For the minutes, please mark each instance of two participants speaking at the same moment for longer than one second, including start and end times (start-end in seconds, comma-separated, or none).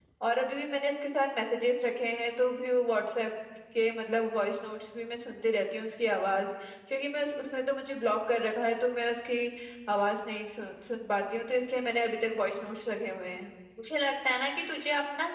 none